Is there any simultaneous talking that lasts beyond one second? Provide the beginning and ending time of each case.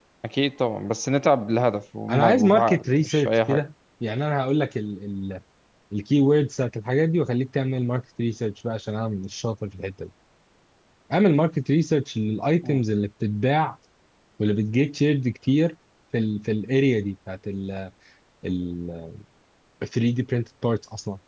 2.1-3.7

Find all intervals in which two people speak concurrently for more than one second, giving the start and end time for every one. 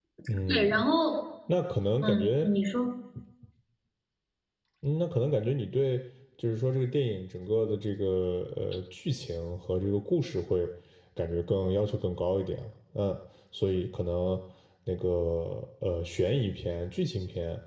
none

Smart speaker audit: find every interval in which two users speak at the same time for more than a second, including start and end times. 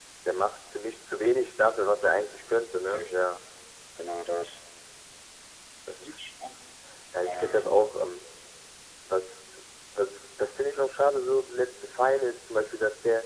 none

